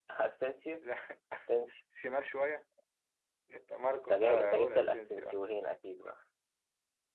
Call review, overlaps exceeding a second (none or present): present